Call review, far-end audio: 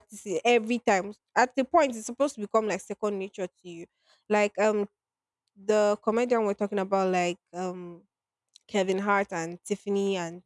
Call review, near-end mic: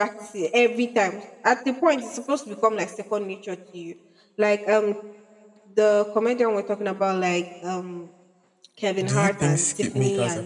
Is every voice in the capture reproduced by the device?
No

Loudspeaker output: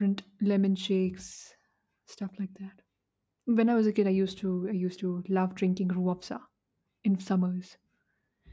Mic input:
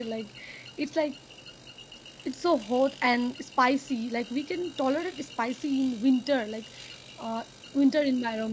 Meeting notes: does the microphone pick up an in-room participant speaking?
Yes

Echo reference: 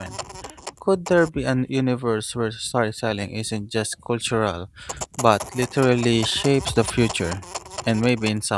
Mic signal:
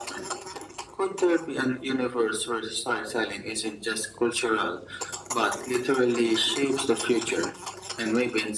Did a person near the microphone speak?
No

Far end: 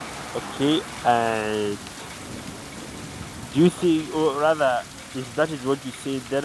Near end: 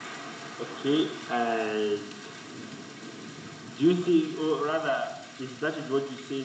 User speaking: No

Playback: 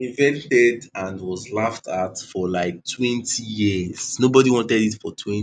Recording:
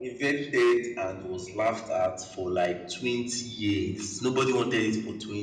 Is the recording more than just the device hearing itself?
No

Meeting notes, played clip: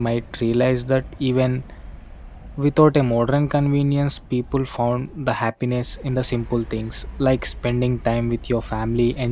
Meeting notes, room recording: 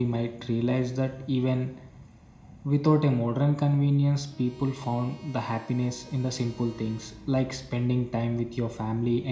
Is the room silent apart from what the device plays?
Yes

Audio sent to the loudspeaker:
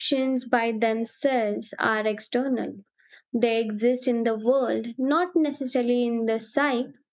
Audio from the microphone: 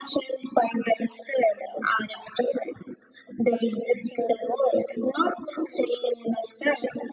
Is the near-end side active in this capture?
No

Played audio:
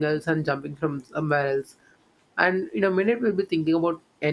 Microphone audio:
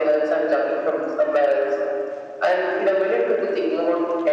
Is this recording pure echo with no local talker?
Yes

